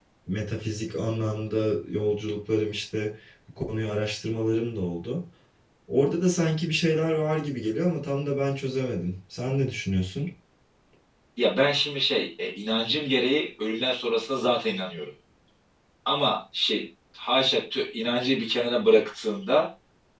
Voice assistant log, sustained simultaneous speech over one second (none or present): none